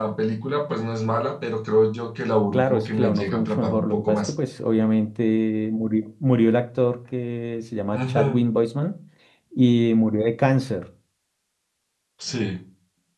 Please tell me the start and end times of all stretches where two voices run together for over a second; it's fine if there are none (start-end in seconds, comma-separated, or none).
2.5-4.3